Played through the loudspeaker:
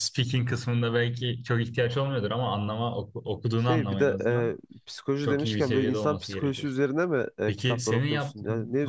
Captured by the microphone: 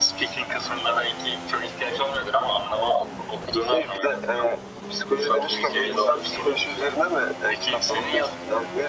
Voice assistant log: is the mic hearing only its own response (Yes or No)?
Yes